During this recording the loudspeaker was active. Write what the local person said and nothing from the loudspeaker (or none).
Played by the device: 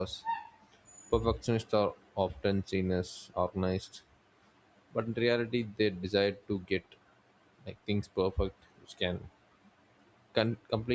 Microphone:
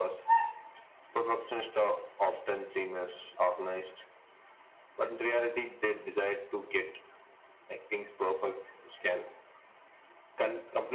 none